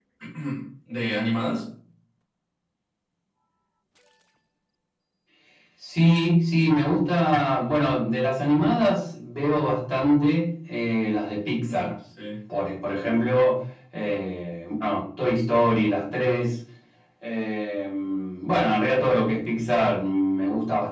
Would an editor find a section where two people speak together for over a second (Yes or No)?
No